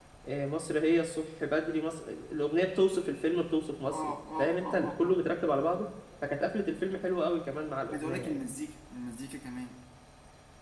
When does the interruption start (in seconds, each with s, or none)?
3.9 s